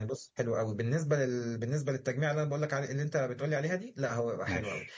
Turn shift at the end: No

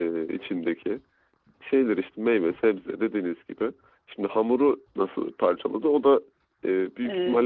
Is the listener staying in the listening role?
No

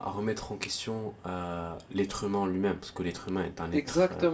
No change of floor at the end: No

